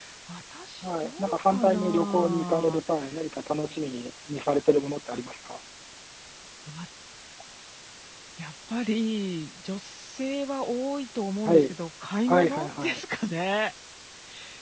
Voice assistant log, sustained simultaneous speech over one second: present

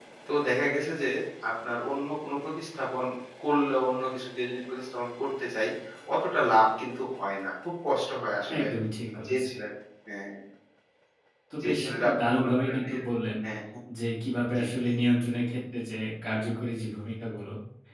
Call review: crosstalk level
present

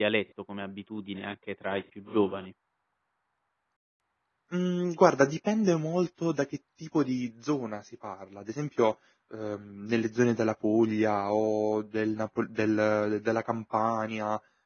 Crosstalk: none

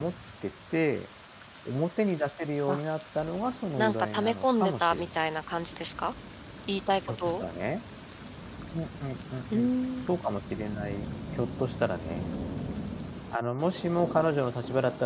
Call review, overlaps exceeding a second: present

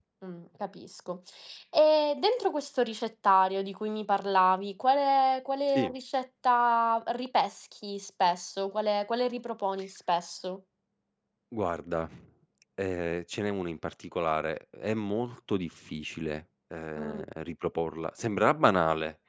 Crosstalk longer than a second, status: none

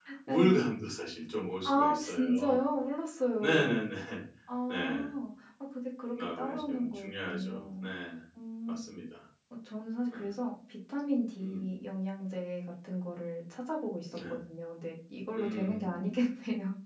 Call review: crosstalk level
present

